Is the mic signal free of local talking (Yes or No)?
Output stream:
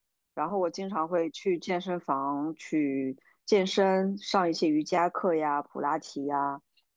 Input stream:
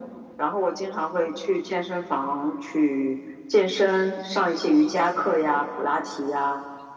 Yes